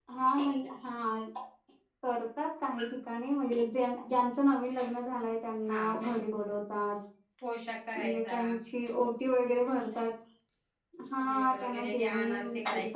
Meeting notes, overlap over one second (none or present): present